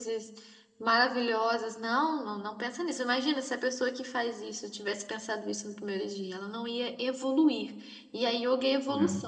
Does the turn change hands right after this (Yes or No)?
No